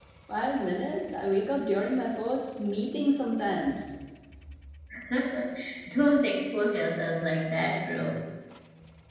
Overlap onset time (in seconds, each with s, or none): none